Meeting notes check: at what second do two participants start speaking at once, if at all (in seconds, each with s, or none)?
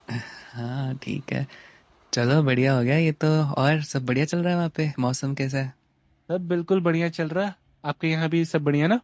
none